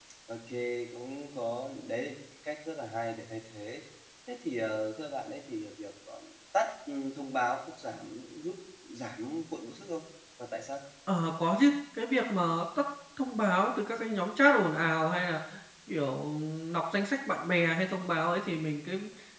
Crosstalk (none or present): none